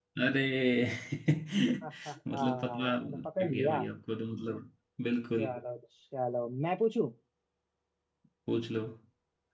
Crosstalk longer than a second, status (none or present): present